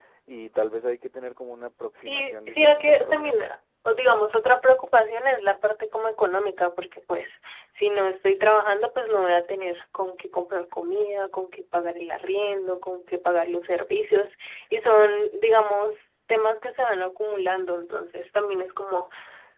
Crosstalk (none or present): present